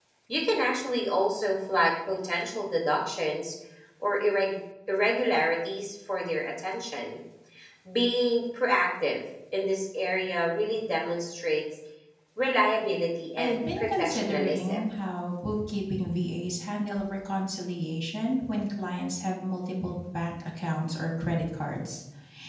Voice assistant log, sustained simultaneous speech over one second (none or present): present